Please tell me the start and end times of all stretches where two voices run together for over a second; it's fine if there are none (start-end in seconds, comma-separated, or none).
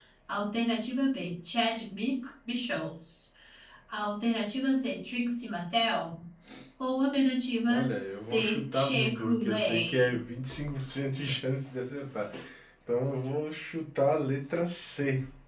8.3-10.2